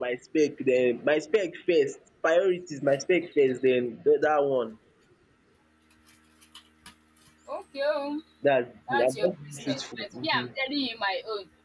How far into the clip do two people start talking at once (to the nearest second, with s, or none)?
9 s